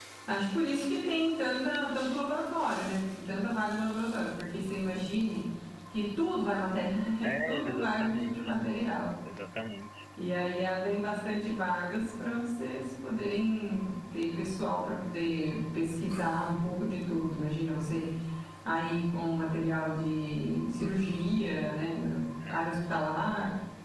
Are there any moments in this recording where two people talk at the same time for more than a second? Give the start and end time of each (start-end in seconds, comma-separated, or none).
7.2-8.6